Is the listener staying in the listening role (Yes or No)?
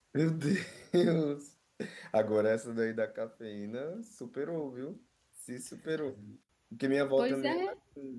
Yes